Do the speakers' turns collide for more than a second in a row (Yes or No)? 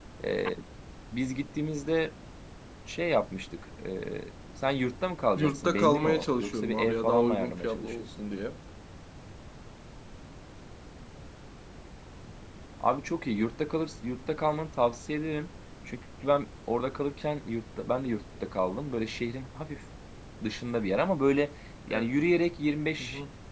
Yes